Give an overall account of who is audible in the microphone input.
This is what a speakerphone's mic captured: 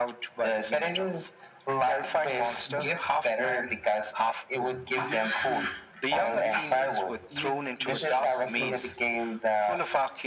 both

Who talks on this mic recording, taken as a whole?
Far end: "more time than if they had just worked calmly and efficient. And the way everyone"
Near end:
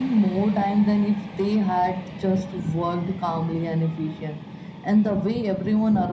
echo only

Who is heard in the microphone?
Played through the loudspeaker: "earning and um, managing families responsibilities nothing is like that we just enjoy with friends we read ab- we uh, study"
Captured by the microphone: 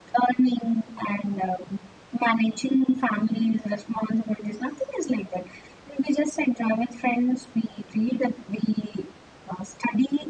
echo only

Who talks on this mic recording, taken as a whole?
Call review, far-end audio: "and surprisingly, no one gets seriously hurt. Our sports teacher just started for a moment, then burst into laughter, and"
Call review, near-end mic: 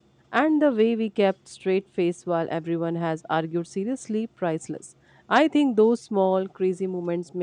user only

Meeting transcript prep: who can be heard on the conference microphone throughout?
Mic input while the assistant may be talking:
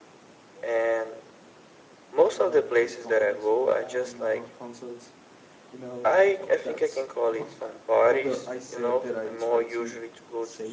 both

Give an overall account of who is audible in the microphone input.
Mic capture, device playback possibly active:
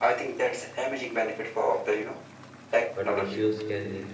both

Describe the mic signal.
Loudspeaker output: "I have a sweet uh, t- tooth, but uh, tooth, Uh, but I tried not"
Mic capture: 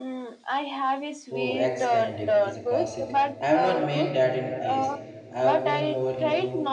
both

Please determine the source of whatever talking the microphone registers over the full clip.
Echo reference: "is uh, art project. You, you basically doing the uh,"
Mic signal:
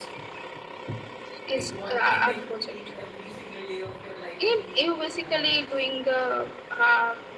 both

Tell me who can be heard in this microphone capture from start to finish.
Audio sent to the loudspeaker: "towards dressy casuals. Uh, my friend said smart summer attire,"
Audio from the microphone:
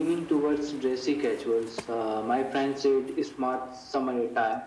echo only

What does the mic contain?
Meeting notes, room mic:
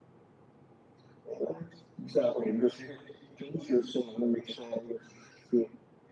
echo only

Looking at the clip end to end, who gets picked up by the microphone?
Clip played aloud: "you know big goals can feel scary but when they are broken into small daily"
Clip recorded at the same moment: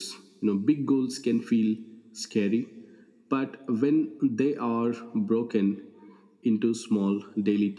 echo only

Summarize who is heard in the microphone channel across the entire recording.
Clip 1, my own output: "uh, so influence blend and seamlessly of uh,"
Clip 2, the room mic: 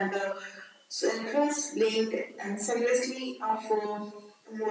echo only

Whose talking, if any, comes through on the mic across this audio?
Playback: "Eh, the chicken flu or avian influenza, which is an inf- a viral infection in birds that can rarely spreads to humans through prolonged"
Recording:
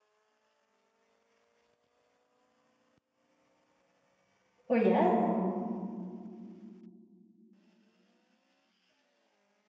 user only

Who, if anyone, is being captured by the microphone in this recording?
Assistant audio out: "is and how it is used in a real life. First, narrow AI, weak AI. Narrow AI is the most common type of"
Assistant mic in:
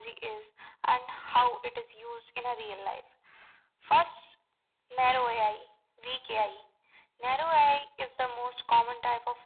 echo only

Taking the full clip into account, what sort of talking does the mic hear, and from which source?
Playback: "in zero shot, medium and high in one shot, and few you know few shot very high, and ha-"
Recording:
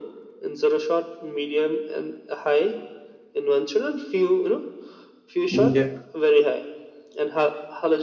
both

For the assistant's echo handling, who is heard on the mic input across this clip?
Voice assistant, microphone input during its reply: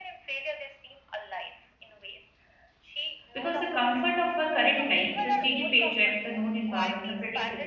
both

